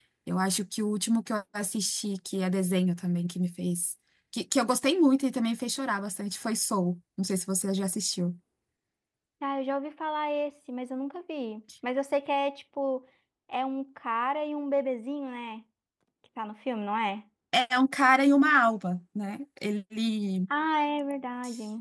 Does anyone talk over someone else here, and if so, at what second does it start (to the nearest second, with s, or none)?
none